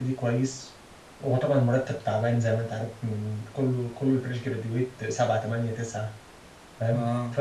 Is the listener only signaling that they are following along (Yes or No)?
Yes